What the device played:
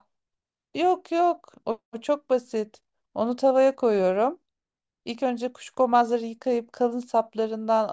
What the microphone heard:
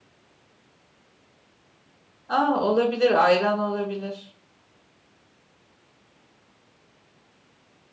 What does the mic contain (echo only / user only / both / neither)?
user only